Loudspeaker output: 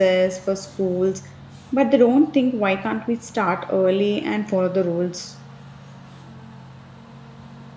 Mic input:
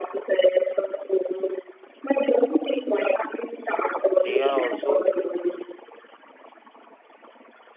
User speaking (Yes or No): Yes